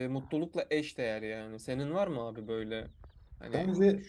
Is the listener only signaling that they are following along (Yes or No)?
No